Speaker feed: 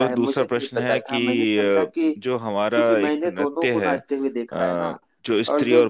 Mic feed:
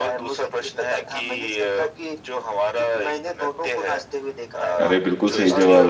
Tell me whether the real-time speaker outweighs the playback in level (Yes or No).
Yes